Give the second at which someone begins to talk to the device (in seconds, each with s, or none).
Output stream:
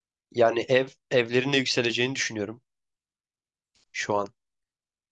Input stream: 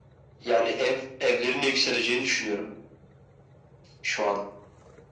none